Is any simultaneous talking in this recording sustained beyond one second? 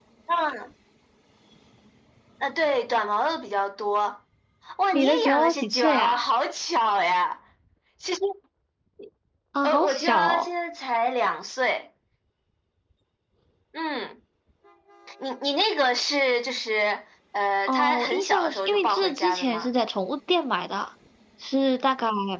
Yes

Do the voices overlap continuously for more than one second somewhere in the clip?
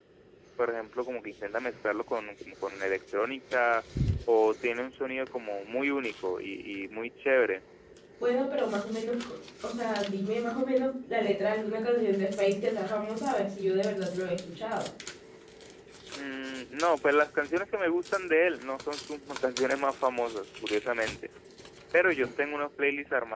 No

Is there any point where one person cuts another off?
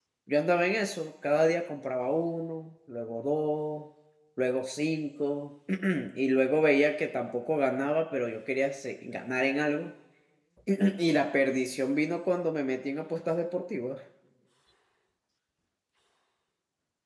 No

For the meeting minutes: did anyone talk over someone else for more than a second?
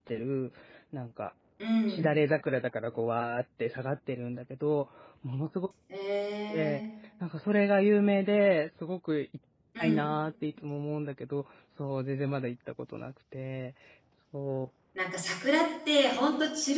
No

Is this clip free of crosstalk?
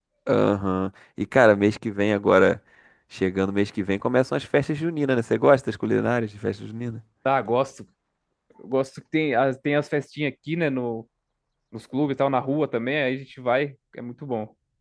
Yes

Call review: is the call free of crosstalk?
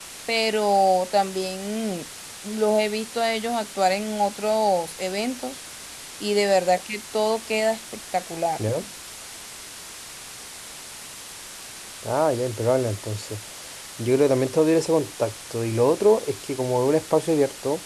Yes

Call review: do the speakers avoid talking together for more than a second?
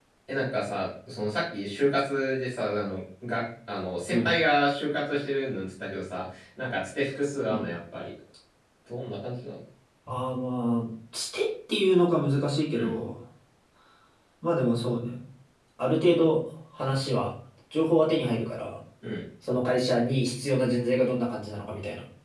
Yes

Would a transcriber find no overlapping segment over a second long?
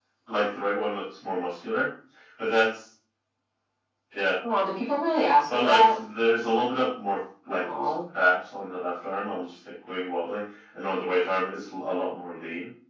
Yes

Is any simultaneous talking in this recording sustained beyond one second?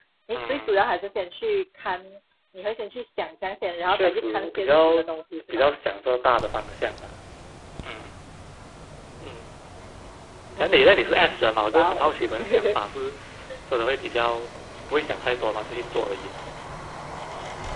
Yes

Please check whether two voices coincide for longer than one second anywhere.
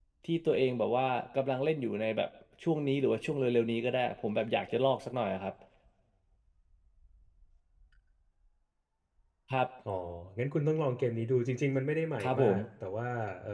No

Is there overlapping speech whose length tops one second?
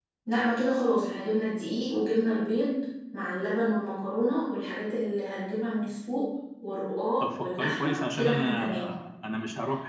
Yes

